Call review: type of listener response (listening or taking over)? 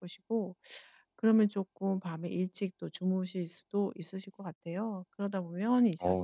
listening